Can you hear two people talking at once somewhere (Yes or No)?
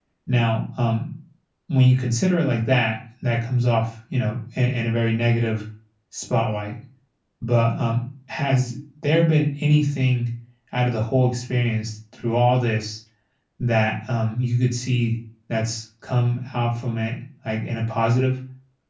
No